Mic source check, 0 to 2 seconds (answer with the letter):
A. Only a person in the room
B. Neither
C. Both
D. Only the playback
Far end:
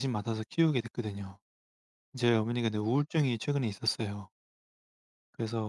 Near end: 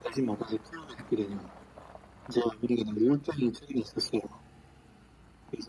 D